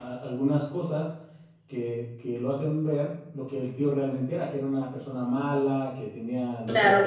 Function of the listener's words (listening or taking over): taking over